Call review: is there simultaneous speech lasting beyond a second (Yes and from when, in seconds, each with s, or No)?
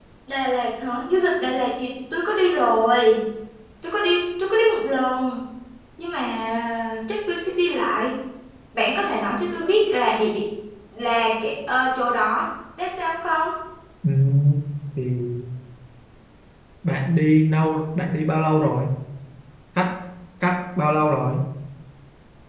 No